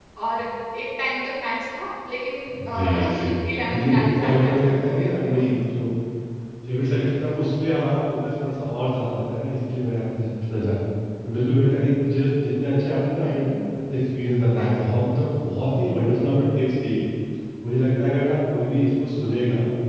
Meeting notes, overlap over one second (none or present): present